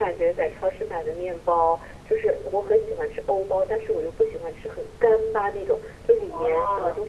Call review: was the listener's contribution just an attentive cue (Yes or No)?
Yes